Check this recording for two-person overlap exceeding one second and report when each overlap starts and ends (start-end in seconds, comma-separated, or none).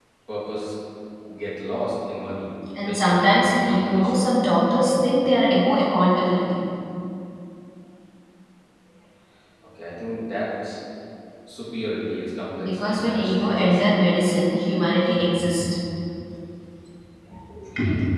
2.9-4.3, 12.6-14.1